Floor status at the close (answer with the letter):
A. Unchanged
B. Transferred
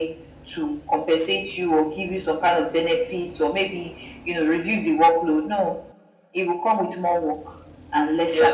B